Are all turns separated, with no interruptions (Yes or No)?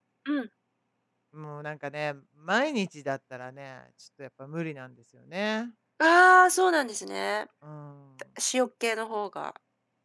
Yes